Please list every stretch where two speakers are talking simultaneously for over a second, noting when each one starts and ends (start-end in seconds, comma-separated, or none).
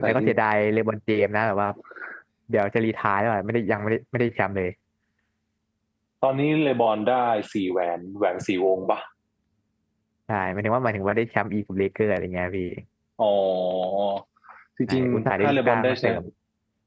14.9-16.2